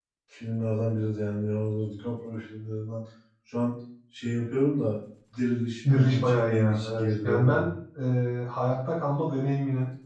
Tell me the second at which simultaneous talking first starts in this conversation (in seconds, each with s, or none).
5.8 s